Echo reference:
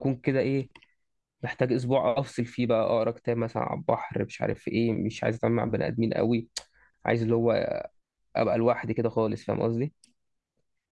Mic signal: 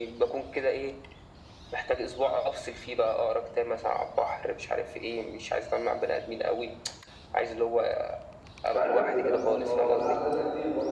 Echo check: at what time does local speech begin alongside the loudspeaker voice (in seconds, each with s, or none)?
8.7 s